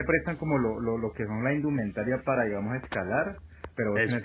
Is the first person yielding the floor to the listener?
No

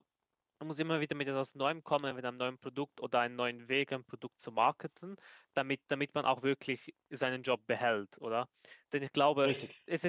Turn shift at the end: No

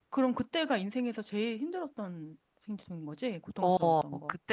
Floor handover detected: Yes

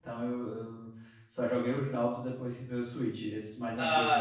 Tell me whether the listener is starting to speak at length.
Yes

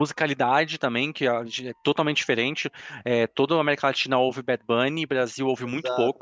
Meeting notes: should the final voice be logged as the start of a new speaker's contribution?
No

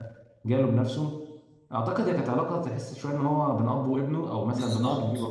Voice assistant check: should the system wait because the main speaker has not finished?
No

